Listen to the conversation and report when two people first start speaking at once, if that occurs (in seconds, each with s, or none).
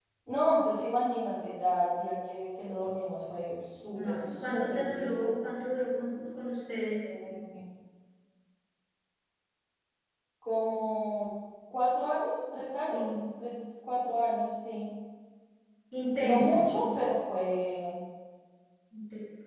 3.9 s